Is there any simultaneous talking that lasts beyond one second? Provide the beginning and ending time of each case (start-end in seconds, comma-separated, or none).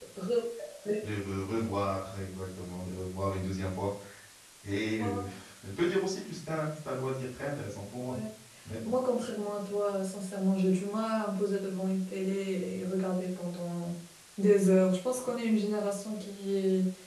none